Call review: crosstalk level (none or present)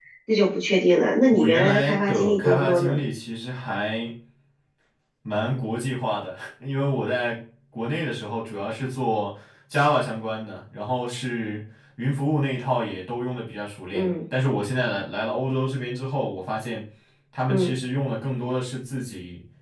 present